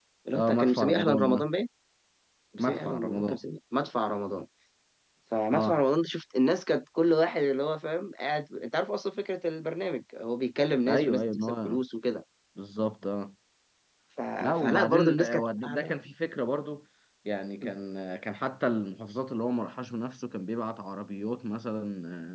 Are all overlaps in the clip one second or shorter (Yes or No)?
No